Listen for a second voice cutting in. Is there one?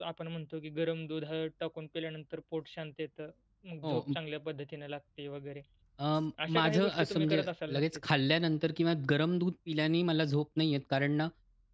Yes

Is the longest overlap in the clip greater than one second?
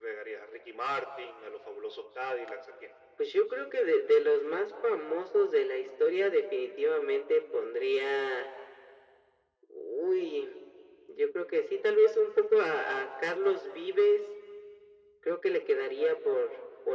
No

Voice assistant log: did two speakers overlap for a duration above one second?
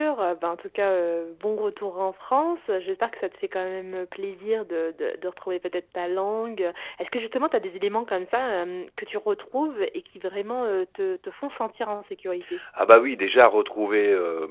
No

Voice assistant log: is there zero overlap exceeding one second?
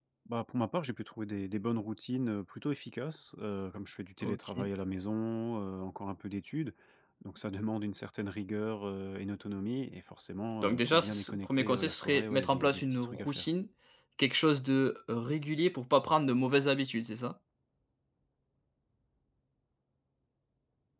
No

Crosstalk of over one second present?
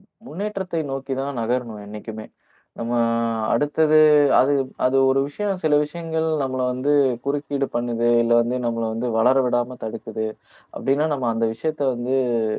No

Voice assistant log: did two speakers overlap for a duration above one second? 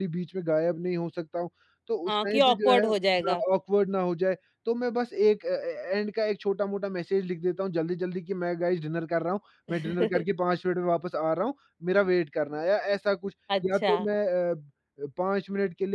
Yes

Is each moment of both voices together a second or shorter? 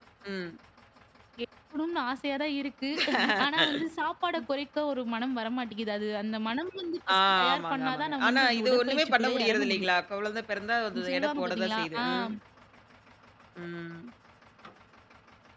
No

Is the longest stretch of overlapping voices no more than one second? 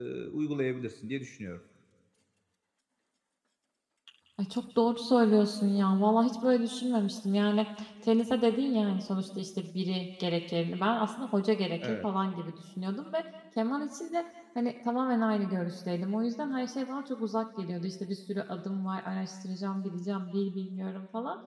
Yes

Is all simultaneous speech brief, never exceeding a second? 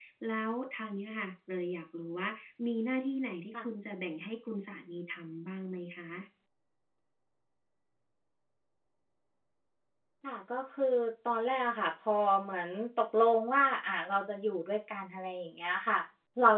Yes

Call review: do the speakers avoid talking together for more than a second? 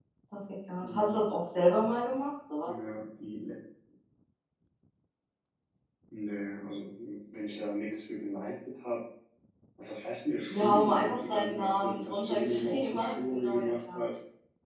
No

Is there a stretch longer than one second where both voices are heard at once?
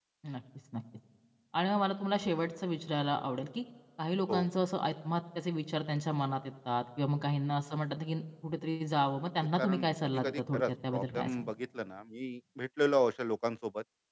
Yes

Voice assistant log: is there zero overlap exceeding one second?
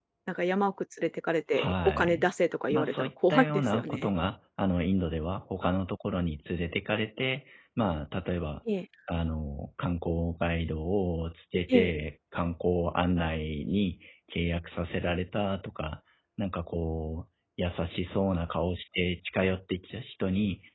No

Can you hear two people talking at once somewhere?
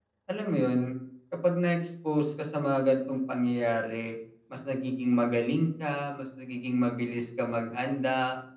No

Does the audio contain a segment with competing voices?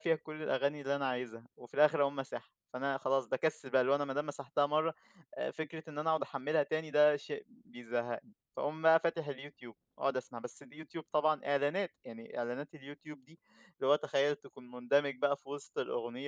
No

